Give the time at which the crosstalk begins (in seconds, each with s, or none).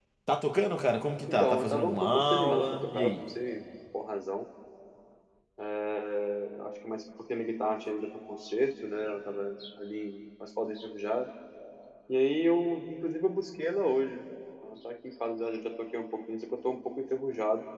1.3 s